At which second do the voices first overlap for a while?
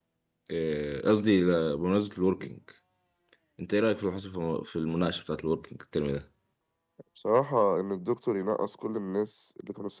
none

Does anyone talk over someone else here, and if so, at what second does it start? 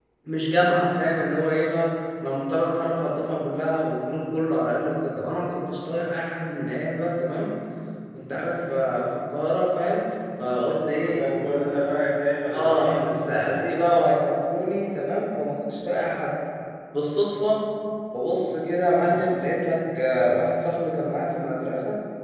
12.5 s

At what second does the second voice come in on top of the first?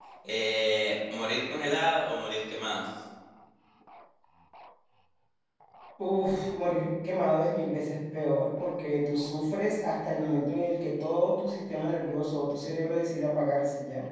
none

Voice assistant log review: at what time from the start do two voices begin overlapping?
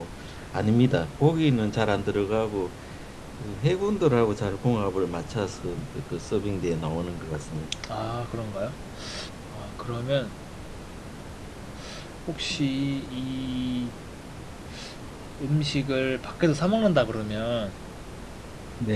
none

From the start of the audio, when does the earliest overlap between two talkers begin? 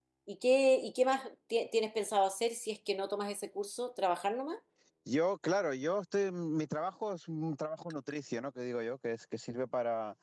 none

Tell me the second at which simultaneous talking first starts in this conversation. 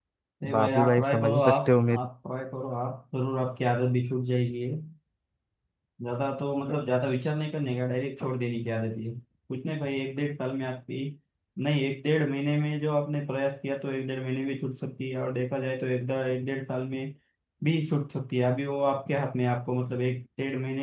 0.5 s

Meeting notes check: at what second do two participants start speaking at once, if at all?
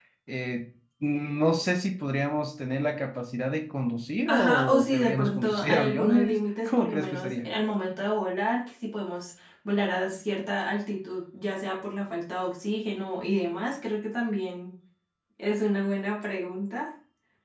4.3 s

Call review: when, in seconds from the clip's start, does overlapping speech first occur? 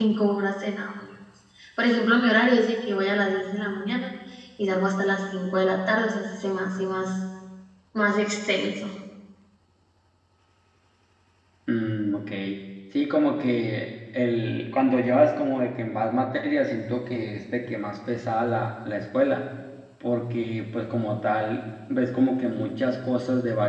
none

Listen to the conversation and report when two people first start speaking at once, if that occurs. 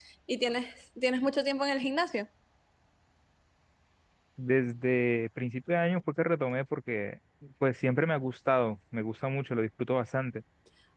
none

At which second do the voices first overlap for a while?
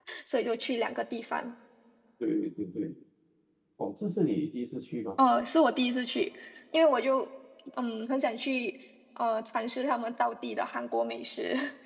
none

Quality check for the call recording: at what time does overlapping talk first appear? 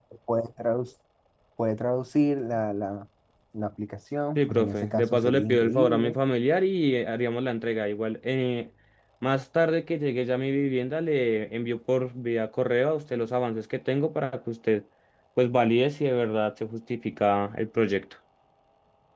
4.4 s

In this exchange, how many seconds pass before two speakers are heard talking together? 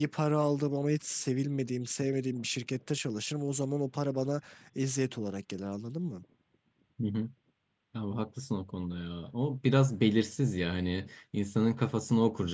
none

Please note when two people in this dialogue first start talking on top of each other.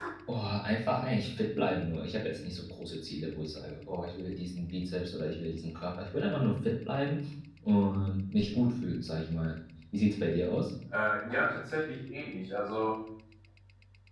none

